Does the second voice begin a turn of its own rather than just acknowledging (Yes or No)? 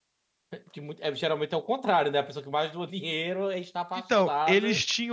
Yes